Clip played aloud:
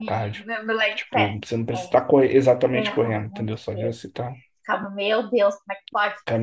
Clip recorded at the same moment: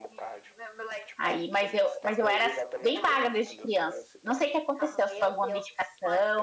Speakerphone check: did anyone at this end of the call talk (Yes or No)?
Yes